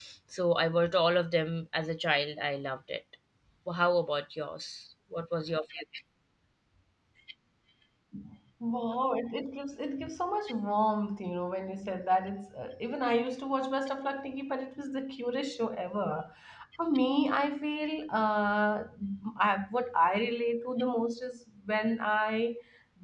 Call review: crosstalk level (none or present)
none